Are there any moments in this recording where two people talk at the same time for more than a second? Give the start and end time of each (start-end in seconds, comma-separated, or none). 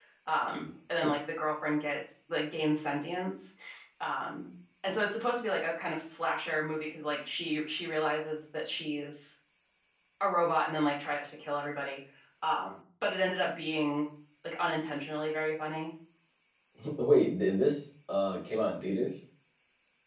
none